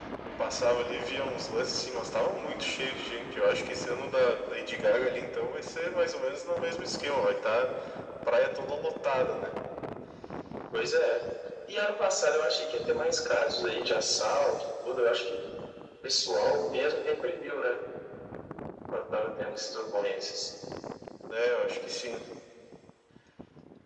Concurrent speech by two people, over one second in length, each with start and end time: none

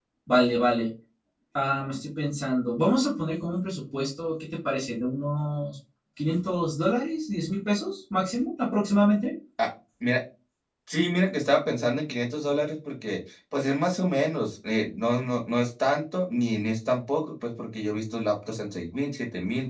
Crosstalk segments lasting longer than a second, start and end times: none

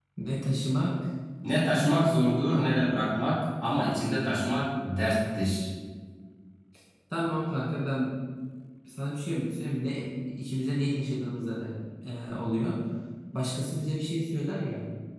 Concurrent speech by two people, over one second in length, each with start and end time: none

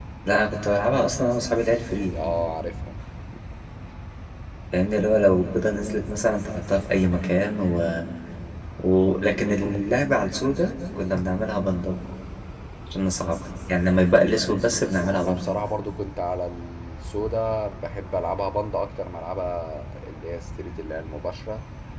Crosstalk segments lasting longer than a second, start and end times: none

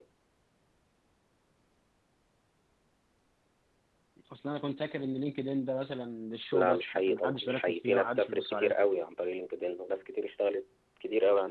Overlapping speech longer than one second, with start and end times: 6.5-8.7

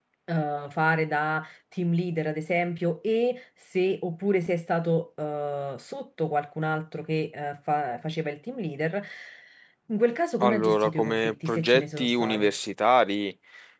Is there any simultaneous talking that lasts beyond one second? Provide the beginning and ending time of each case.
10.4-12.5

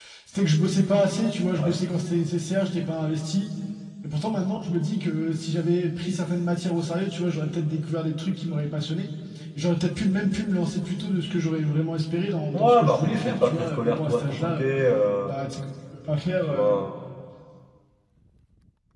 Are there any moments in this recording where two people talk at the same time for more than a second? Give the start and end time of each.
12.5-14.7

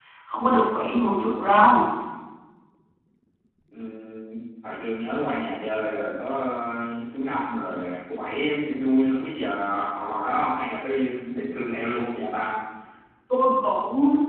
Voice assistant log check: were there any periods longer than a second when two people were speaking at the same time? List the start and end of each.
none

